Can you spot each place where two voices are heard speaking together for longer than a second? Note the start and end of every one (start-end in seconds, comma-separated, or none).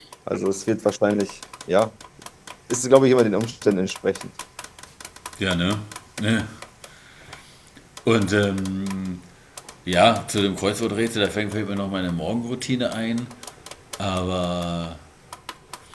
none